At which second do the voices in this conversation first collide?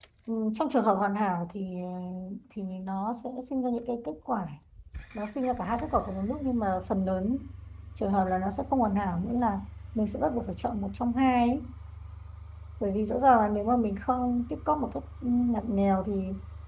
none

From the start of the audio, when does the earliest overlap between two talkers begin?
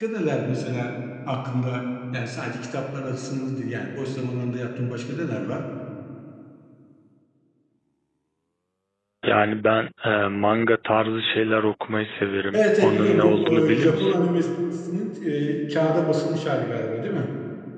13 s

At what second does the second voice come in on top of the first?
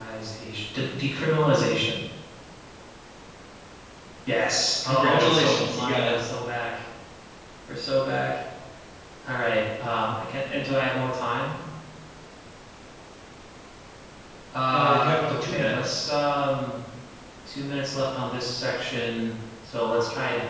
5 s

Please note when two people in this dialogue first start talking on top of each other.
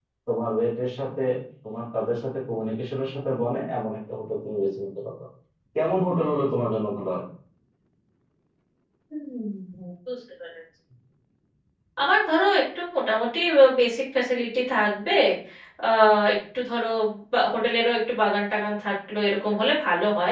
none

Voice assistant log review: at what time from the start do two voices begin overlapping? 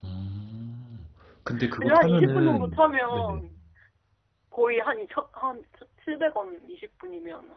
2 s

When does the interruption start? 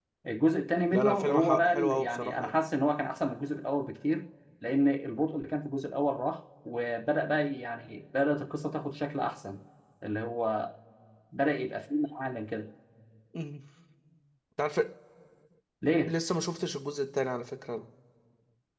1 s

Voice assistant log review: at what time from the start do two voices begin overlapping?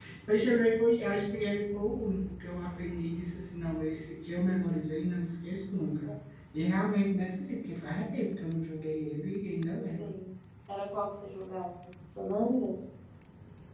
none

